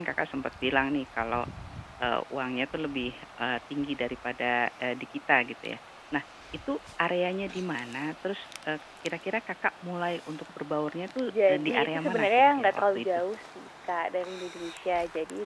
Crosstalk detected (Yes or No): Yes